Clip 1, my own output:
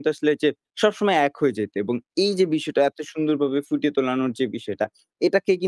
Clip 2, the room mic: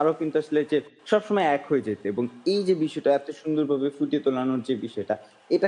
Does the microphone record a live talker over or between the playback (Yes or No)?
No